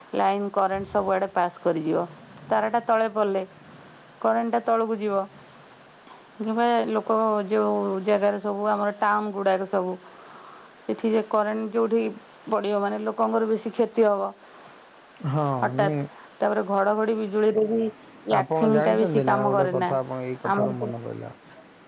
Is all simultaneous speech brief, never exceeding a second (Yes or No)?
No